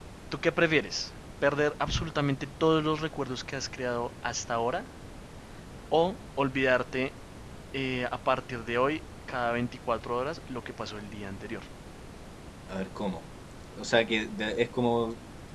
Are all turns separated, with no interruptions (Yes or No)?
Yes